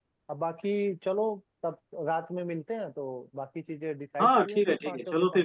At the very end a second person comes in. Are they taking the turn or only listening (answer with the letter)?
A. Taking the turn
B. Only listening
A